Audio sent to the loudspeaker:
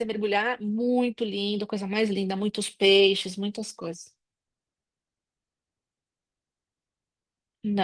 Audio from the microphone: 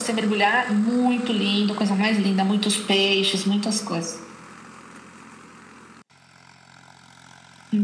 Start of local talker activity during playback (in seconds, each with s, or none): none